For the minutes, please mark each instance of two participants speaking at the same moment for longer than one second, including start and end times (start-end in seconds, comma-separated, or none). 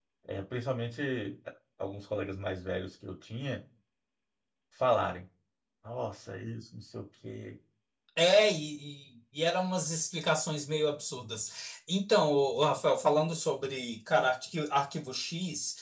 none